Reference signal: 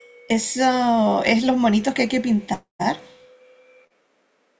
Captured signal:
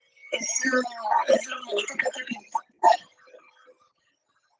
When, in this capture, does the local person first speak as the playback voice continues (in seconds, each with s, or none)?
none